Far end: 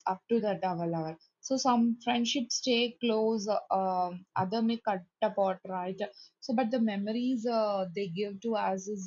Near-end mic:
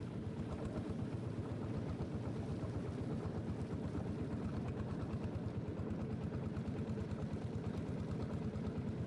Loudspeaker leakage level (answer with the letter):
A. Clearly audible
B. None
B